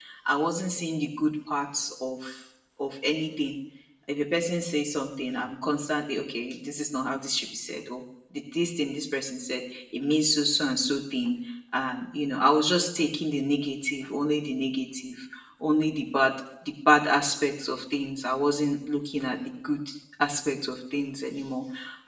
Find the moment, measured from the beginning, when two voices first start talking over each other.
none

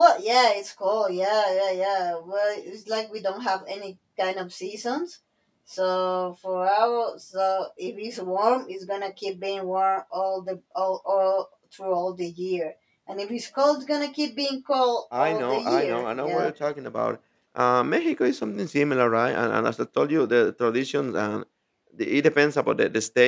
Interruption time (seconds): 15.1 s

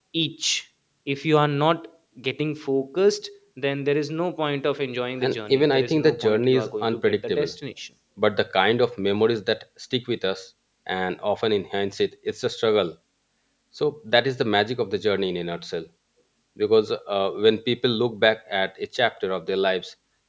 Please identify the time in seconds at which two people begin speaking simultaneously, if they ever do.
5.2 s

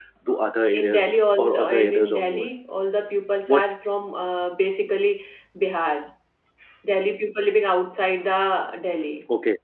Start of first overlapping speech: 0.7 s

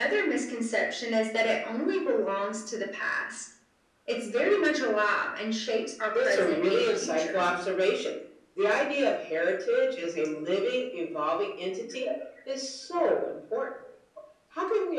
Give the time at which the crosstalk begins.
6.1 s

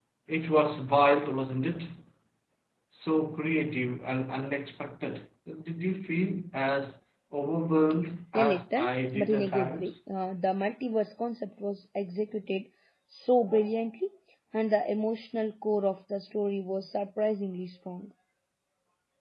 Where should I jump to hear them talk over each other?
8.3 s

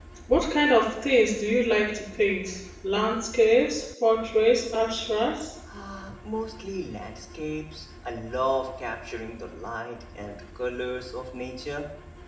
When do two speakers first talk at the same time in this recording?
none

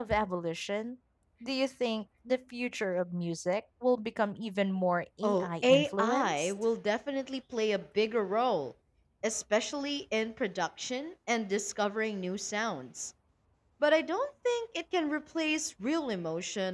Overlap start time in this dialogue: 5.2 s

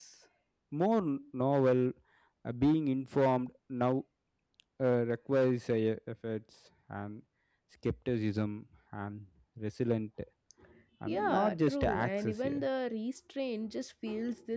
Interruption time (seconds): 11.1 s

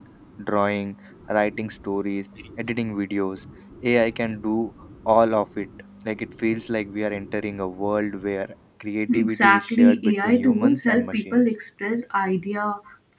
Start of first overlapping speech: 9.1 s

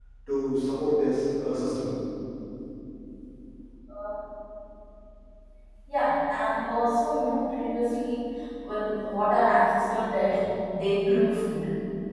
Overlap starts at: none

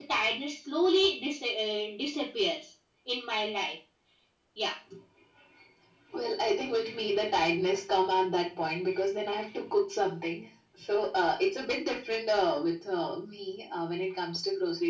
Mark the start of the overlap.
none

